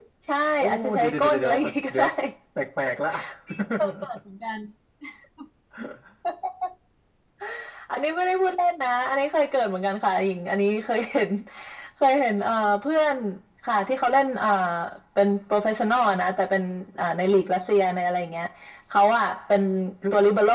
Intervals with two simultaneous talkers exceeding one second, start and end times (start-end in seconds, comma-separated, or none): 0.6-2.0